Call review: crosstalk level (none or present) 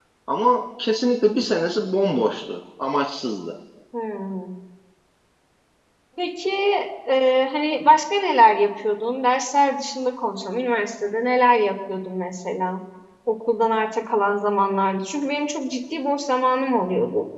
none